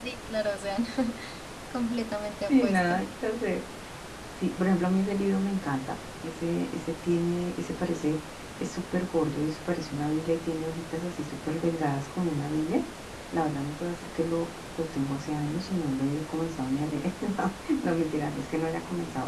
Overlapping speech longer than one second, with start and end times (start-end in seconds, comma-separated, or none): none